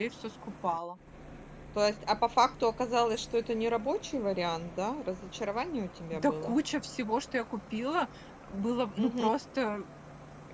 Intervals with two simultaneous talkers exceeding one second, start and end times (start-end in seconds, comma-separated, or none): none